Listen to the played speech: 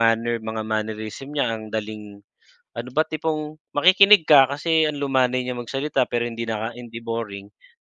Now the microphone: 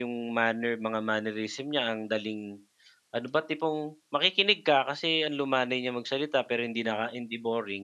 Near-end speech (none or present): none